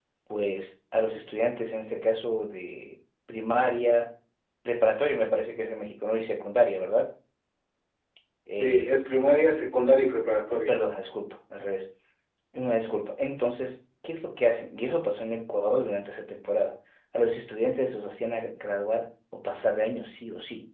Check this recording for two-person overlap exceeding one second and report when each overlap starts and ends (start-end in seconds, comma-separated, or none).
none